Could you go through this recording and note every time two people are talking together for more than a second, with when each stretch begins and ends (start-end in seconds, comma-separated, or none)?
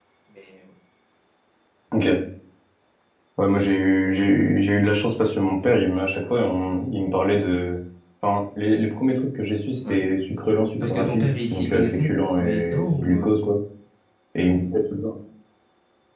10.8-13.3